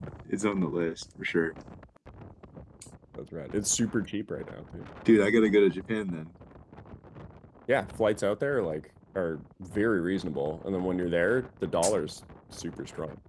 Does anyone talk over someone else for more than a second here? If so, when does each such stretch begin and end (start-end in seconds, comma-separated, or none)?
none